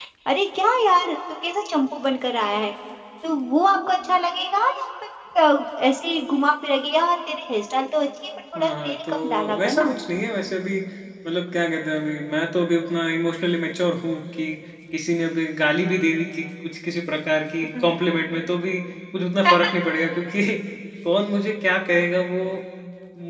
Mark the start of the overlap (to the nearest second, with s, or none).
9 s